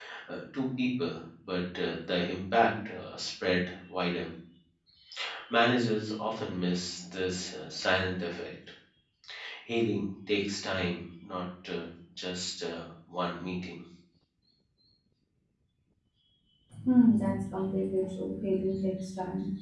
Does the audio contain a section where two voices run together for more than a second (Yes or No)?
No